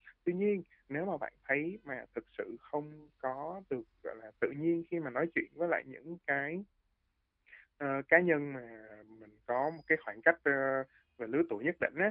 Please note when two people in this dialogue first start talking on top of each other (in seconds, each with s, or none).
none